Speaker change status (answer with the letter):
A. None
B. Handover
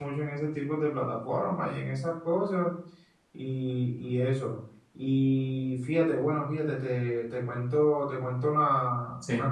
A